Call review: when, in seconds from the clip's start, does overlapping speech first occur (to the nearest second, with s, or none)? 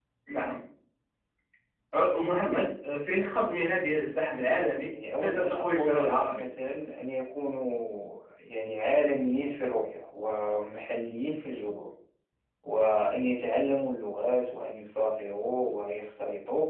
5 s